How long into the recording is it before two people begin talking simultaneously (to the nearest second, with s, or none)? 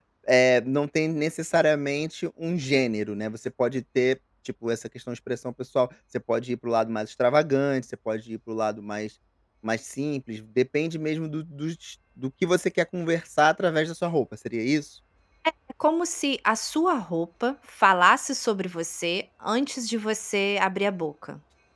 none